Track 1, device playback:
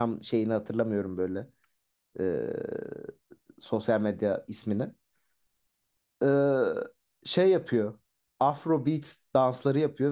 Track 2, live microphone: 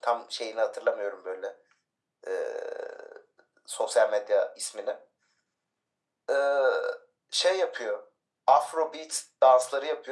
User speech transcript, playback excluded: none

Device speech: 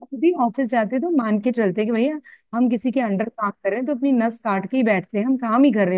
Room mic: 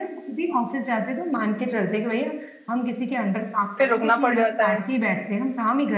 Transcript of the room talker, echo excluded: फिर रुकना पड़ जाता है

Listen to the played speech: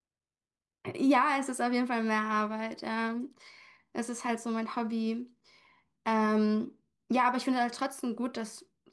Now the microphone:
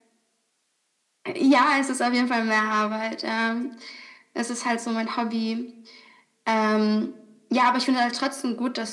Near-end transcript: none

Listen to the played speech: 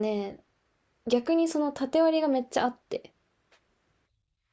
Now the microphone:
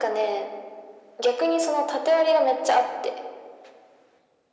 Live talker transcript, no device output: none

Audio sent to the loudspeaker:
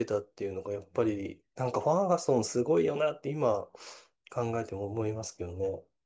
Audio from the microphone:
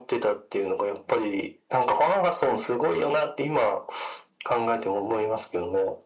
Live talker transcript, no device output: none

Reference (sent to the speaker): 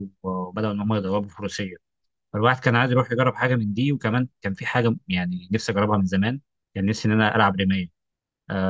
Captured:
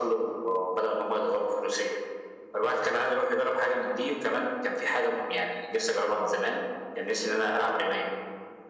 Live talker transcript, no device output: none

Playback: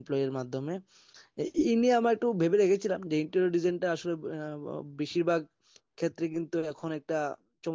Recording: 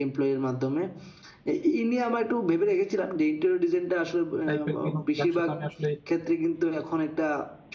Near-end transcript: টাইপের কোনো ব্যবসা তো আমি আসলে

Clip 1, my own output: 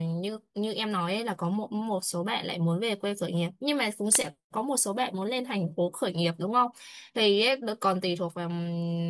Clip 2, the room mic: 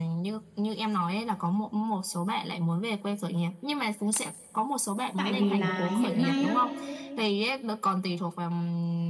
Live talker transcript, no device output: tại vì là hiện nay á

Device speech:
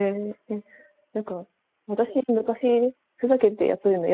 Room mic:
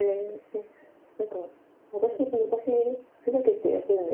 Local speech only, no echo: none

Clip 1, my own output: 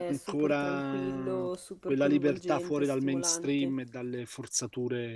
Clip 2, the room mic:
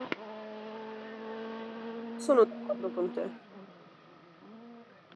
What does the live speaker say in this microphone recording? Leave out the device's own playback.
Sono d'accordo con te.

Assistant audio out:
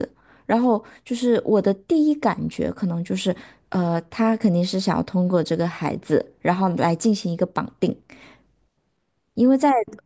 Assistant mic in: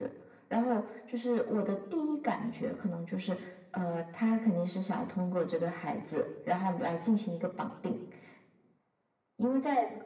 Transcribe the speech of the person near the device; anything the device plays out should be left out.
none

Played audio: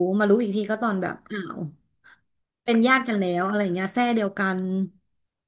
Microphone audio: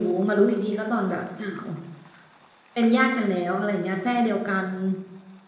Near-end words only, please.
none

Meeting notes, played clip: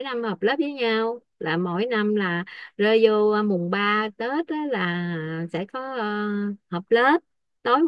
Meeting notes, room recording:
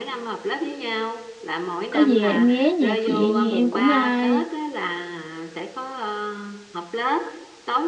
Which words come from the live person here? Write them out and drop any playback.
có gì em ghé nhà chị em cũng à,

